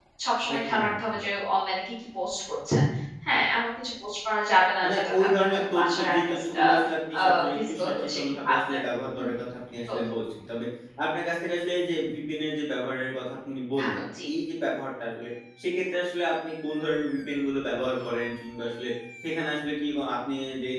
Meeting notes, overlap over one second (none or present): present